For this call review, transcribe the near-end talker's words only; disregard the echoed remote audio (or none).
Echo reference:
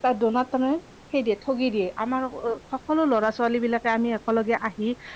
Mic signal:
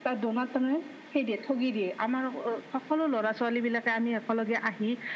none